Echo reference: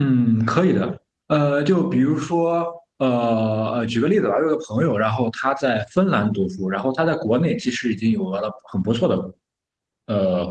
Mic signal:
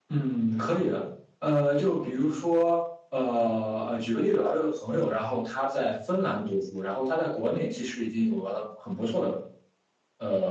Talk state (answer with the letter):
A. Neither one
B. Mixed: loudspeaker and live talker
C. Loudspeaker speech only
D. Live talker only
C